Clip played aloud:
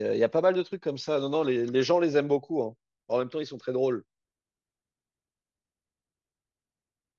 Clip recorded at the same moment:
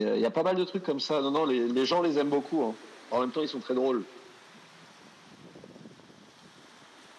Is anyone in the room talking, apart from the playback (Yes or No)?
No